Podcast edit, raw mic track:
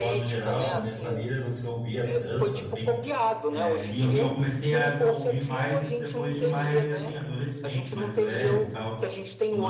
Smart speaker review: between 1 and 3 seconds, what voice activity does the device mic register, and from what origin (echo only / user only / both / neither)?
both